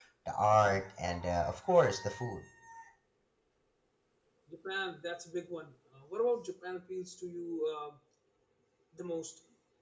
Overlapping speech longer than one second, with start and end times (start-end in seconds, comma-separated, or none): none